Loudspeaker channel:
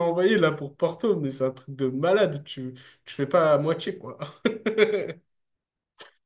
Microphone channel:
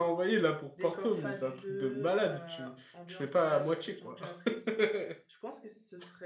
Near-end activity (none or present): present